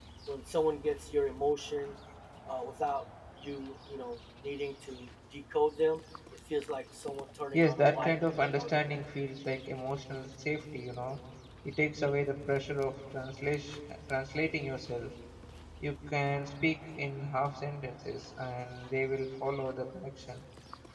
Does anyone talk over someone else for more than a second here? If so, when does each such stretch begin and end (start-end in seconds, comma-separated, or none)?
7.5-9.0